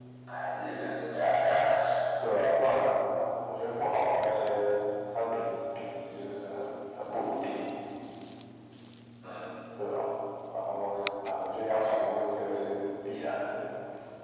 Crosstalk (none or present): none